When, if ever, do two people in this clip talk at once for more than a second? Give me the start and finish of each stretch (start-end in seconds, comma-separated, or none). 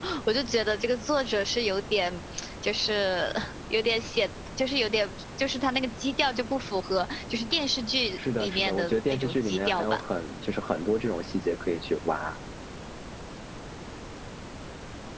8.4-10.0